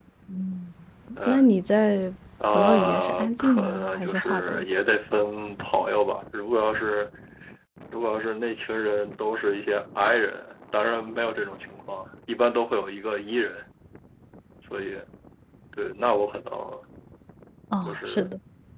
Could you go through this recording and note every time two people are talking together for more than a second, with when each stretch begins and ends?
2.5-4.6

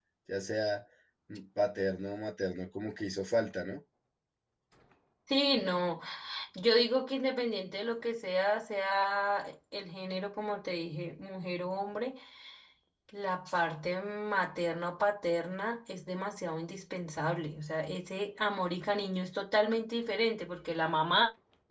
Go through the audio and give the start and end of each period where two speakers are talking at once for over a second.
none

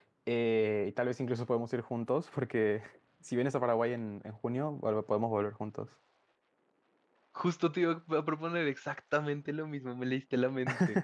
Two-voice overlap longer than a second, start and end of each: none

